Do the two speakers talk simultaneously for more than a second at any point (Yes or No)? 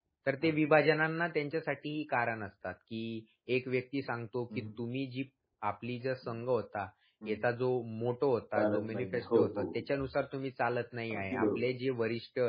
Yes